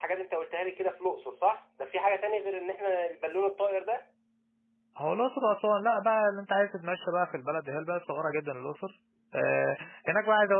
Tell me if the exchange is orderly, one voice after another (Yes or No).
Yes